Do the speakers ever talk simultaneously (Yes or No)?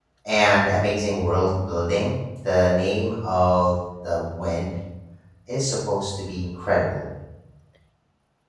No